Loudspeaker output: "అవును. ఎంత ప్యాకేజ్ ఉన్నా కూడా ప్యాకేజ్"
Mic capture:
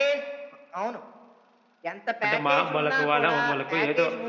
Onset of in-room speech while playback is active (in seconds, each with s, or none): 2.2 s